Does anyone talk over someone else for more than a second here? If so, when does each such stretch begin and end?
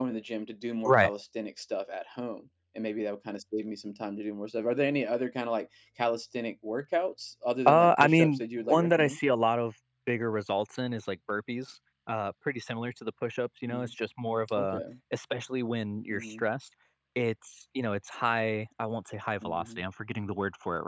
7.7-9.2

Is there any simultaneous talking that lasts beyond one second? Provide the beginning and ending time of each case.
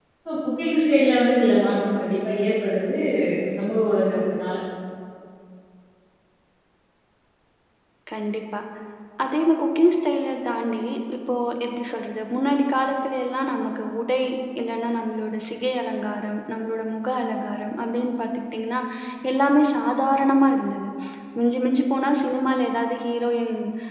none

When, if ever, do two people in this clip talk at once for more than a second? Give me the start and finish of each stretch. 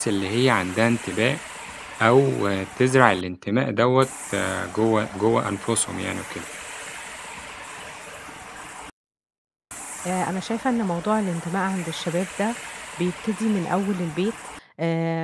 none

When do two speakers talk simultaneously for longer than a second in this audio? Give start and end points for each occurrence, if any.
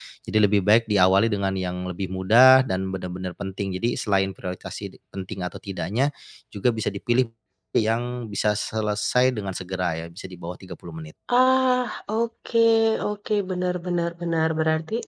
none

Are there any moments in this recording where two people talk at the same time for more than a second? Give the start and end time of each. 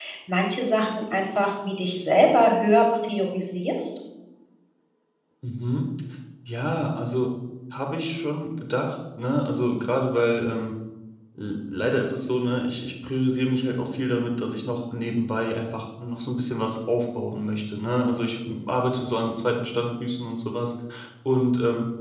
none

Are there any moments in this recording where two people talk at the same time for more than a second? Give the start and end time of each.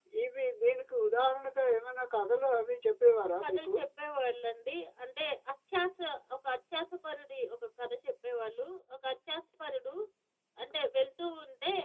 none

